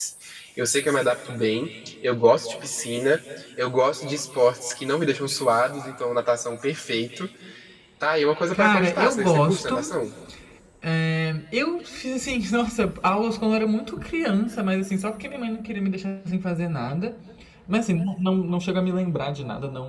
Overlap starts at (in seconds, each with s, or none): 8.5 s